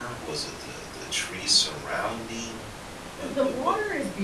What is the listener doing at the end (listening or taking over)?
taking over